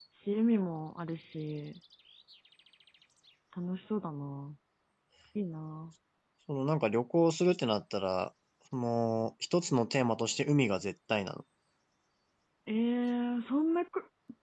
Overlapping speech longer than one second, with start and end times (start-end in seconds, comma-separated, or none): none